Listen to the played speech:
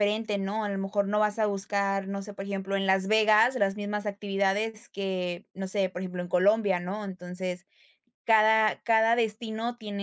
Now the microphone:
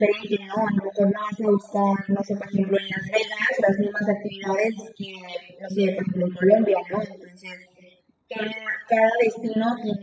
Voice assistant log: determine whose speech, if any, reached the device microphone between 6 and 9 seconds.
echo only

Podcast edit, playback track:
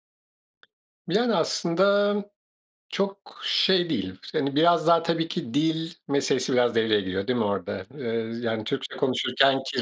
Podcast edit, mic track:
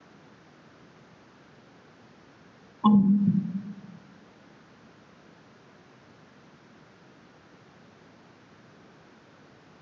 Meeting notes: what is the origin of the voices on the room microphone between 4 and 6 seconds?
neither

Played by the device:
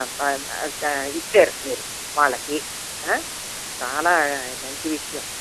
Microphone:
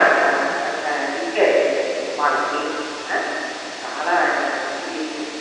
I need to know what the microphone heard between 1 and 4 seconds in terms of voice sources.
echo only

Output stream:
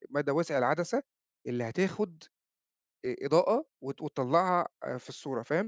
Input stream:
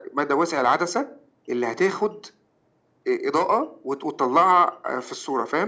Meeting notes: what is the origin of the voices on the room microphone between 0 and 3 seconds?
echo only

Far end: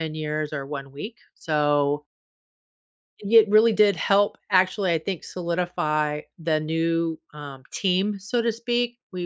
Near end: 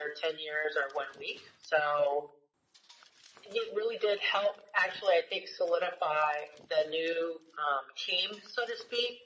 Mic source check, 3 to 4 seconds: echo only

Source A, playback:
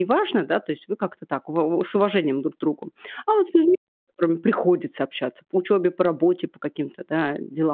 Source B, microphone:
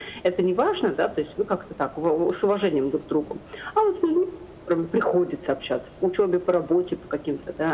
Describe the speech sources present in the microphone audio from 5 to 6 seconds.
echo only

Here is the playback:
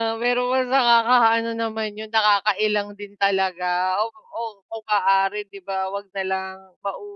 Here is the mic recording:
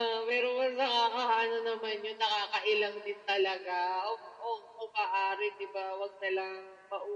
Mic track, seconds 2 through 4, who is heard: echo only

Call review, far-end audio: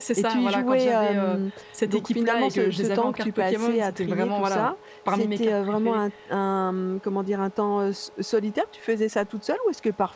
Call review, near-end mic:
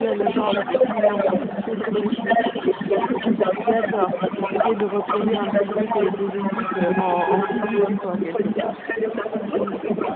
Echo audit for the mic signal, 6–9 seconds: both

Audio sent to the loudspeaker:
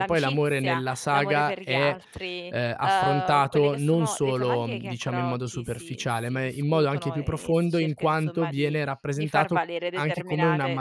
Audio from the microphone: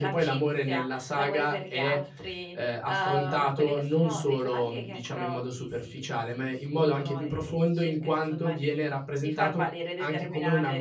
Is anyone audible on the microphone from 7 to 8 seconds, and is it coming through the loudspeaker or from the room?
echo only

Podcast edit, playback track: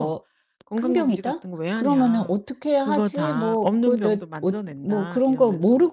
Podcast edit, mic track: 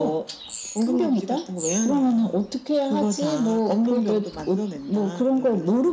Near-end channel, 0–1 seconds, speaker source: echo only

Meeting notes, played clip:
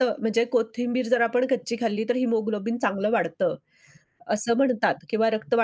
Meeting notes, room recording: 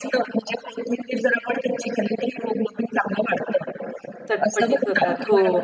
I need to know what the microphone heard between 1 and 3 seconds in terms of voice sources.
echo only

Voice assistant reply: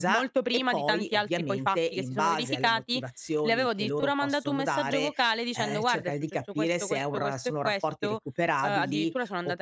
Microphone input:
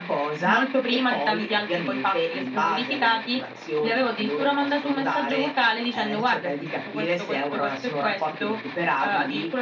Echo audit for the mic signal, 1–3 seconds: echo only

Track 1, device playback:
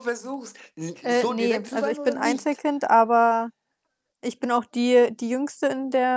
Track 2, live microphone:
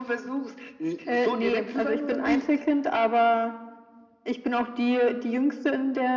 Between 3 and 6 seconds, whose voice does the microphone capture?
echo only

